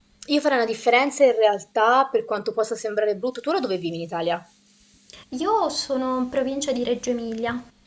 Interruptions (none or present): none